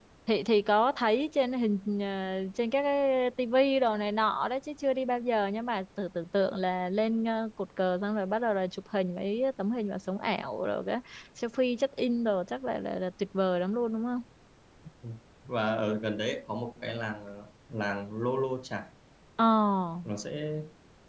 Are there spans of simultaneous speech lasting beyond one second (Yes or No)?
No